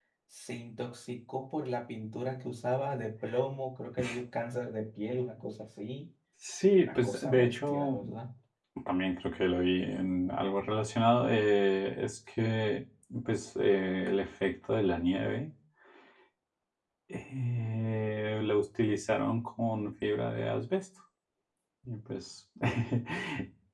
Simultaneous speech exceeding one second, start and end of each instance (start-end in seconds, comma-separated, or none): 6.8-8.0